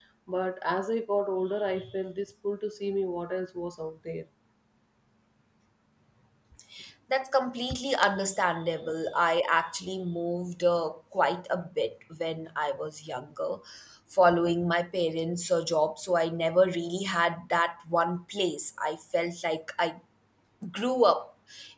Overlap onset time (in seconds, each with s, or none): none